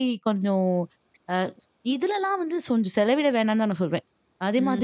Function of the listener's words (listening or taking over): taking over